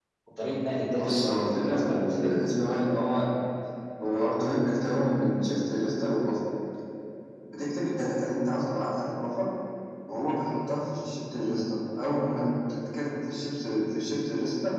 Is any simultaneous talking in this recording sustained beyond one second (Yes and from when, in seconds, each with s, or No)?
Yes, from 0.9 s